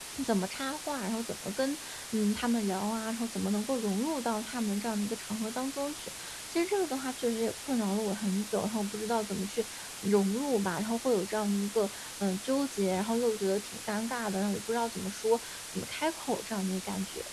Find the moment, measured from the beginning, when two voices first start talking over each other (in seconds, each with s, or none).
none